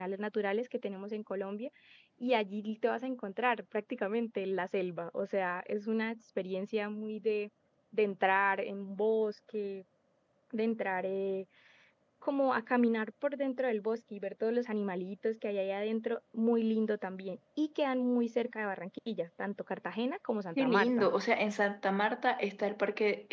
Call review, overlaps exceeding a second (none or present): none